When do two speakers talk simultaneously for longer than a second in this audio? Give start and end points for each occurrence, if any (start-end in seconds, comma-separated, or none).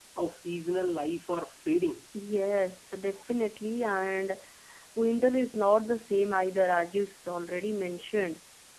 none